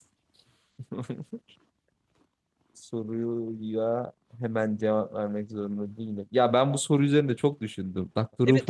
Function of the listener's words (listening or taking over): taking over